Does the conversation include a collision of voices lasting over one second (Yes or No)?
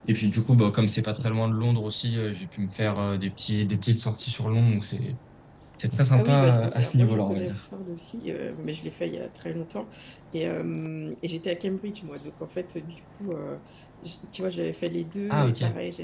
Yes